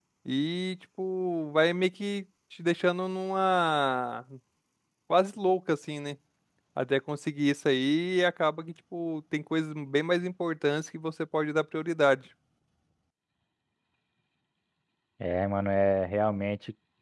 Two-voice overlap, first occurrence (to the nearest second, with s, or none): none